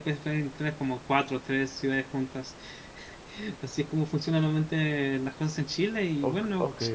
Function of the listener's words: taking over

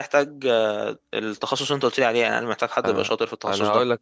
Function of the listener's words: taking over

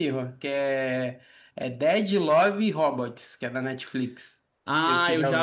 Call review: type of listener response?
taking over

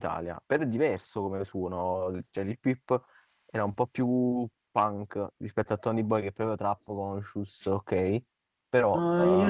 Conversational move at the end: taking over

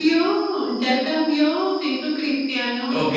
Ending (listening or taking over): taking over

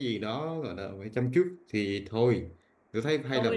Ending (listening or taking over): listening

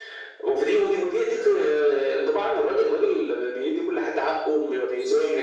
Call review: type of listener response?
listening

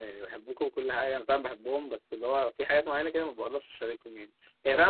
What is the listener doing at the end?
taking over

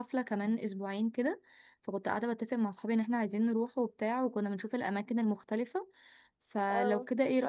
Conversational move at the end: listening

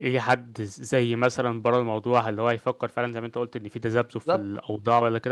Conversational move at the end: listening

